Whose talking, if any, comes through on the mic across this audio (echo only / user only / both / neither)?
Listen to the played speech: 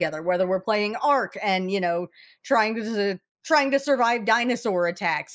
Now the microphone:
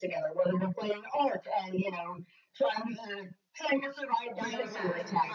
both